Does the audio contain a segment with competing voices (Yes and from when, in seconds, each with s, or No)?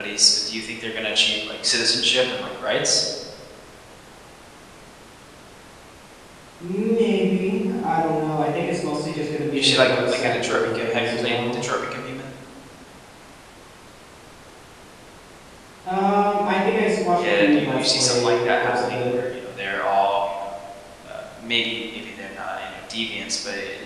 Yes, from 9.6 s